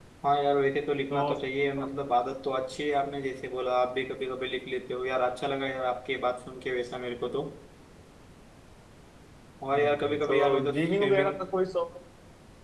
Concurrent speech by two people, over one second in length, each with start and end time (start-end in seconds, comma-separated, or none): 9.7-11.3